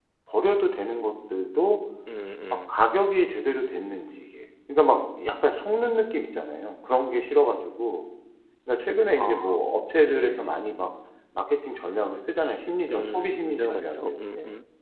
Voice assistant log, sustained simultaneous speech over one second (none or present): present